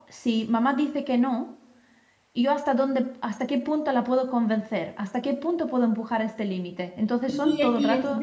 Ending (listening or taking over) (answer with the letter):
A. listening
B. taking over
B